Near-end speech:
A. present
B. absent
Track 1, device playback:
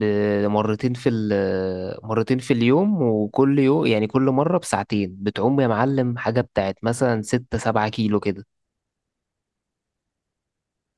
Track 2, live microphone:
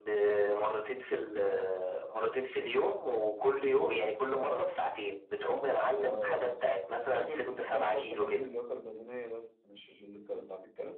A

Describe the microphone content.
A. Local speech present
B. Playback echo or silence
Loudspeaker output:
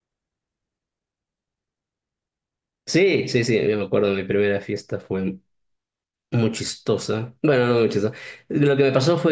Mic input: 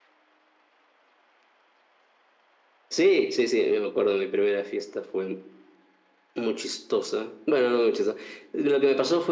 B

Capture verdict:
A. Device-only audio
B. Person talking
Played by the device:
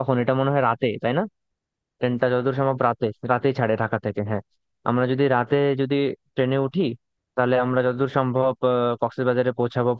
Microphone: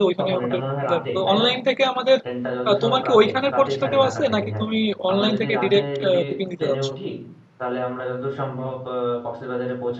B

